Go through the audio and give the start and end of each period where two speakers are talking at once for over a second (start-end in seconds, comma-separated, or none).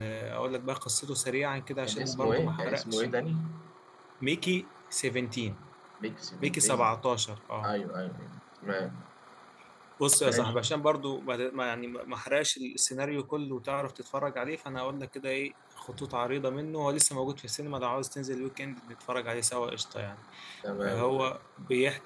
1.8-3.0